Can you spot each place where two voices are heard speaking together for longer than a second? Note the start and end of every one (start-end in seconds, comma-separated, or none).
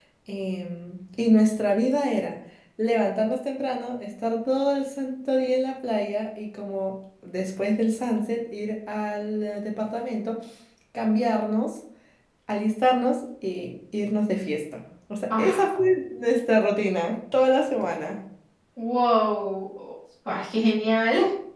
none